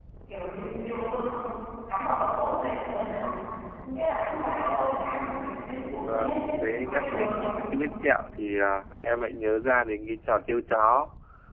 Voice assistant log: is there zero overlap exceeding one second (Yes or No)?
No